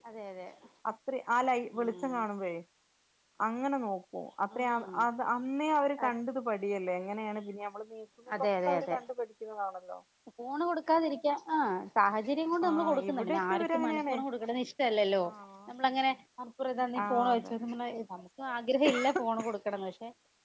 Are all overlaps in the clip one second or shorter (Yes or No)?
No